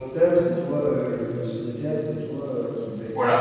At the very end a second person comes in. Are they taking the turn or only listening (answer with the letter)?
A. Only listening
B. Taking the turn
B